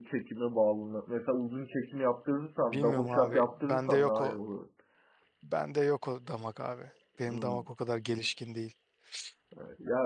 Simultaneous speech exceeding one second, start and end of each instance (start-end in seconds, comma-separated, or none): 2.6-4.4